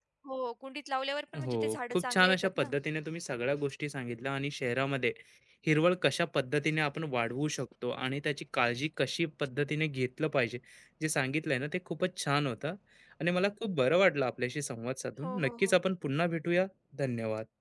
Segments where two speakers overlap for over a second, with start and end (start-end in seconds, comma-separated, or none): 1.4-2.7